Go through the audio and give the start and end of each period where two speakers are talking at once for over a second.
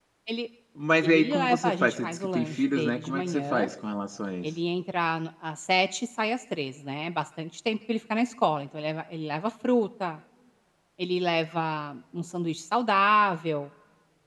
1.0-3.7

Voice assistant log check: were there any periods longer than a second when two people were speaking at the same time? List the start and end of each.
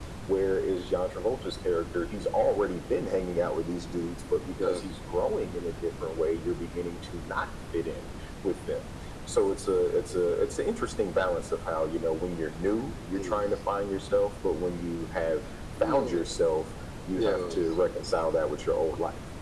none

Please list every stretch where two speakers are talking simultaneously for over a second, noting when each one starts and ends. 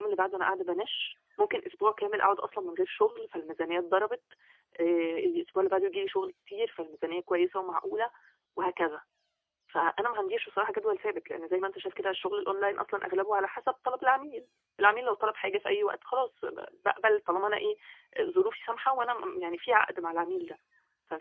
none

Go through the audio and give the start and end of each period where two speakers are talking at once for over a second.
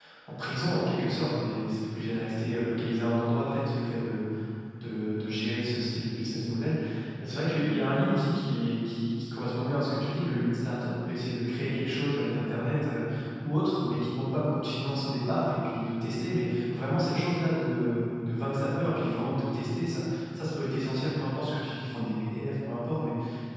none

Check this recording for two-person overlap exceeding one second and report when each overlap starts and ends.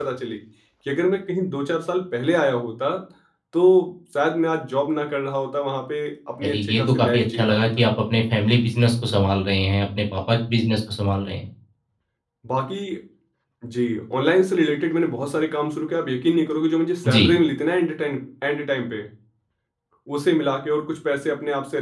6.4-7.8

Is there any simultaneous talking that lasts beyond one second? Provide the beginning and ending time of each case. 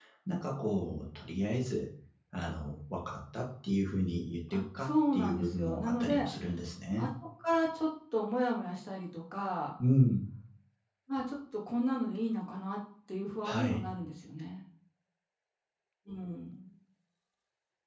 4.5-6.3

